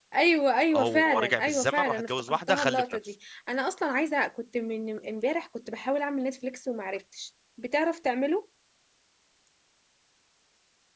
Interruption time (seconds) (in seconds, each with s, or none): 0.8 s